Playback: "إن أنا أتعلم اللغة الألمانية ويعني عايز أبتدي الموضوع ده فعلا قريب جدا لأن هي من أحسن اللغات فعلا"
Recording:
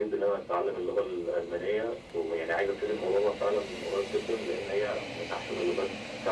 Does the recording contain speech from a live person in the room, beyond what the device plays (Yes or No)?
No